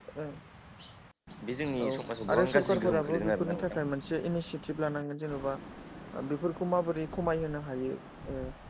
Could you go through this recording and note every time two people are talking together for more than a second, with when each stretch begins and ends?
2.3-3.8

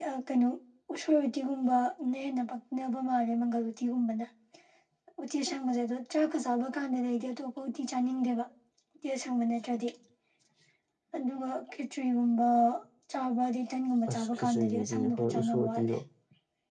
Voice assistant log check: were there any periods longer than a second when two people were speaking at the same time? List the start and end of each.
14.1-15.9

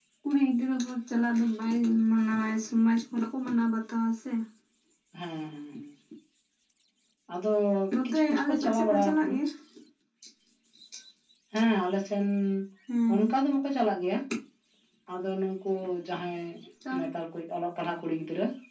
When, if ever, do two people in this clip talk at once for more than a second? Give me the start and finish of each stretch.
8.1-9.3

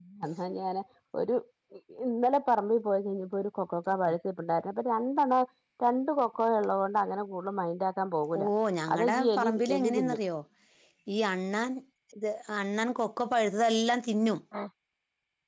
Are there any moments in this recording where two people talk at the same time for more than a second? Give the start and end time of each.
8.9-10.2

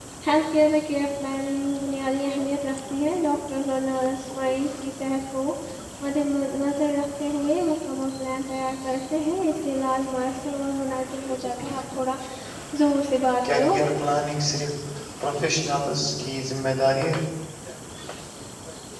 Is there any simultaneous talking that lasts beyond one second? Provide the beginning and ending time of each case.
none

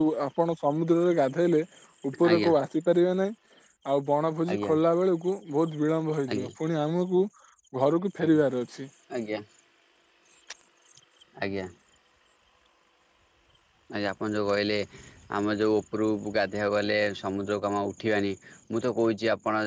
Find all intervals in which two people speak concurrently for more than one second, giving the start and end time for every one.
none

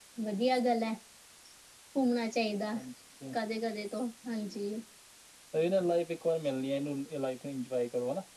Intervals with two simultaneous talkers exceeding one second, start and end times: none

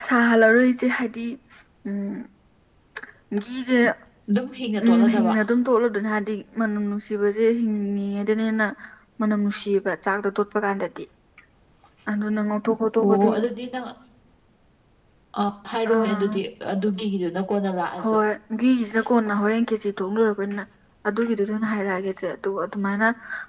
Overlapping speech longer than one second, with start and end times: none

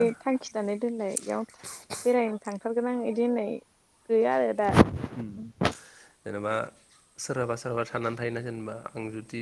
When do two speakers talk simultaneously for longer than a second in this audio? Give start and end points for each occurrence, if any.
none

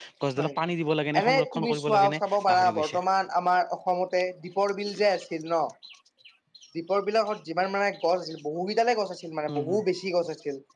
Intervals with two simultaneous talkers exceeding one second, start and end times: 1.2-3.0

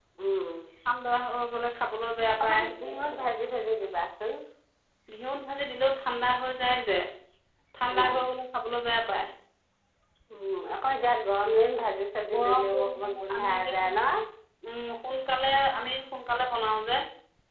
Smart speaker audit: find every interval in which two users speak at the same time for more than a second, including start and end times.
12.3-13.9

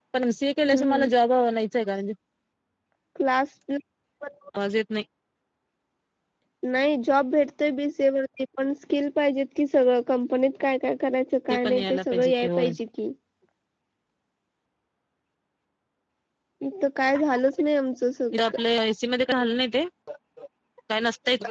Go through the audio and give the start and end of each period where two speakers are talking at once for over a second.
11.5-12.7

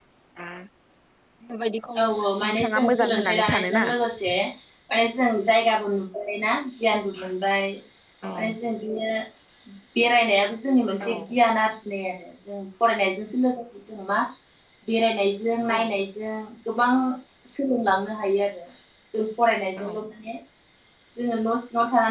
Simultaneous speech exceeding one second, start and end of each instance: 2.5-3.9

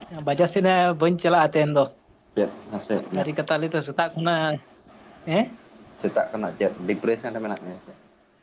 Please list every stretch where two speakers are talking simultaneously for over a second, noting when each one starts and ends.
none

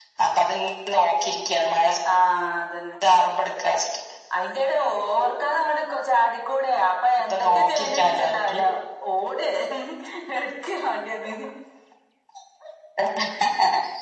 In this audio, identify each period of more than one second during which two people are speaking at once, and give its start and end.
7.3-8.6

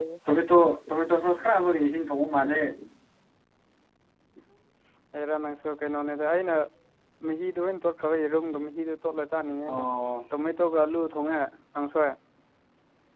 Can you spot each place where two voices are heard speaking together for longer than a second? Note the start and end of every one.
none

